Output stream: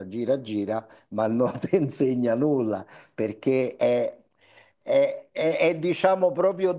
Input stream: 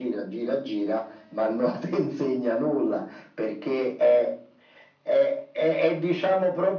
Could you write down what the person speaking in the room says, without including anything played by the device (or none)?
none